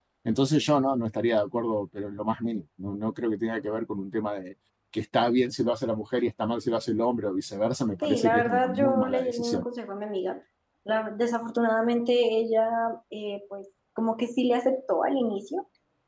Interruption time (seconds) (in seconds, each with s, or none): 8.0 s